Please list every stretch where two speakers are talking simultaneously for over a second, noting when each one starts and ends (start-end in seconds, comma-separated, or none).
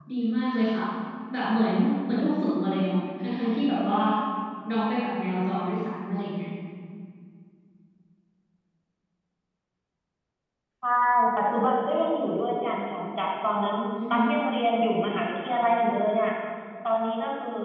none